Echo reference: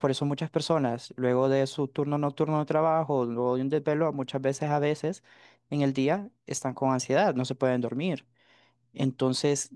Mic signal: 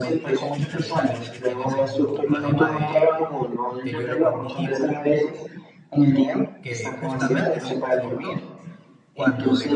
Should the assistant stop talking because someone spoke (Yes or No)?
Yes